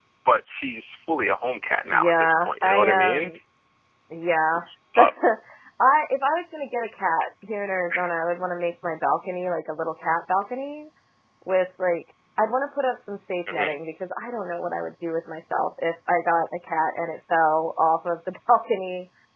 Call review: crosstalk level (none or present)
present